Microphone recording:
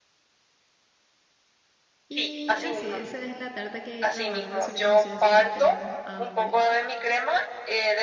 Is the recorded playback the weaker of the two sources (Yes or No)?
No